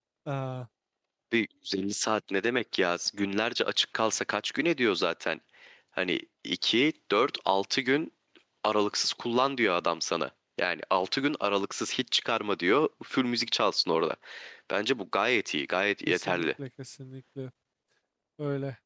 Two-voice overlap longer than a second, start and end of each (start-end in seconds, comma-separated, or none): none